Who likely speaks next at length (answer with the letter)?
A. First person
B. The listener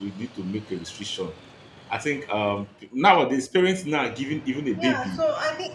B